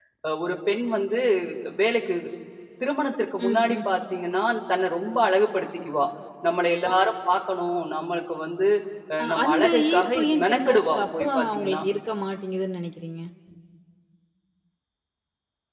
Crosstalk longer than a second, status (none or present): present